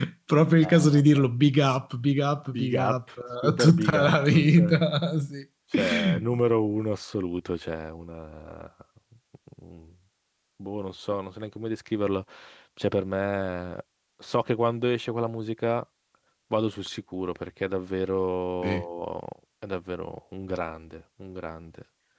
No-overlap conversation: No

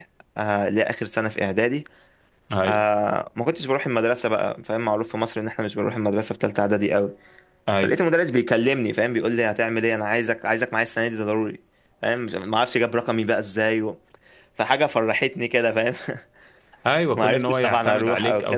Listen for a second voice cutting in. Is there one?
Yes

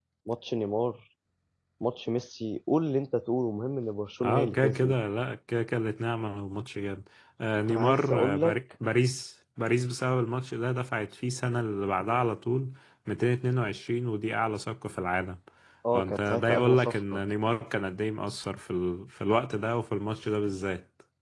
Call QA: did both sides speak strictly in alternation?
No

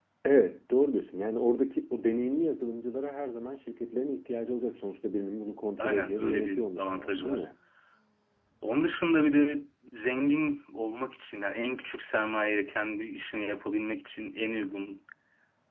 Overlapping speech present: Yes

